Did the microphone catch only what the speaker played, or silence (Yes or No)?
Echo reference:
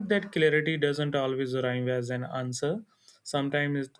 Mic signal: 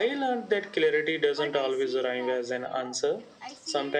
No